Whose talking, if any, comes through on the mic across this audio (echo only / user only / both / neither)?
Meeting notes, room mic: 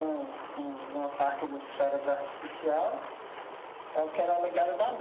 echo only